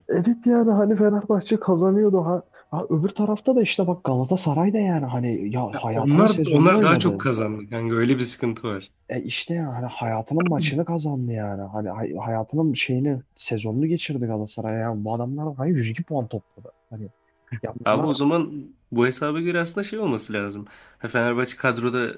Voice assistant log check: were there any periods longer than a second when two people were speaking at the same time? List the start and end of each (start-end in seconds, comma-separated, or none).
5.7-7.2